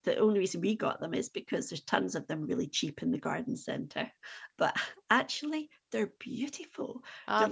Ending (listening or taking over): listening